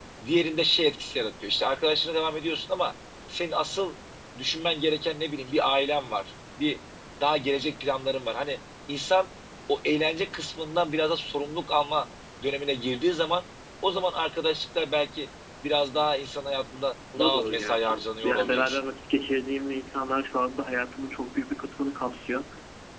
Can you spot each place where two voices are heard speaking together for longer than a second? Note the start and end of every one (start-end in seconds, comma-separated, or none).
17.2-18.8